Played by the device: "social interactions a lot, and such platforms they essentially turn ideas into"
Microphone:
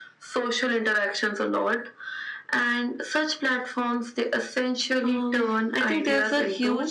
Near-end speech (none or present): present